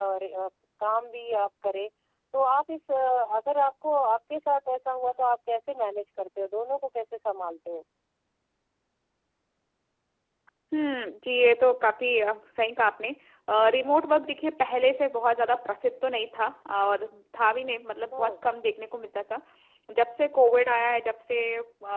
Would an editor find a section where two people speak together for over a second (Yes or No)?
No